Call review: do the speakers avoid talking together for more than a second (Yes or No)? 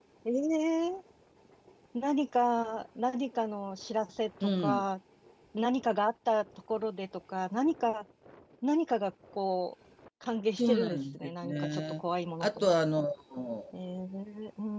No